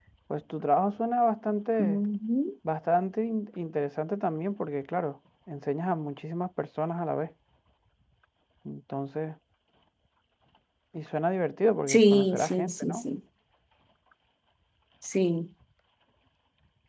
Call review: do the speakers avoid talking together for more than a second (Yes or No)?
No